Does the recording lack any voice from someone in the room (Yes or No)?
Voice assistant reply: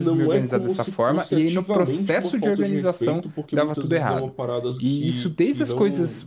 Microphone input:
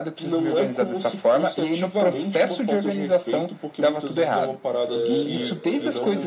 No